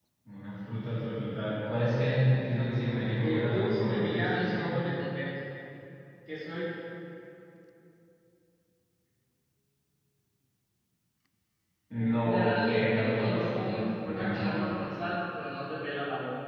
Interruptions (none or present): present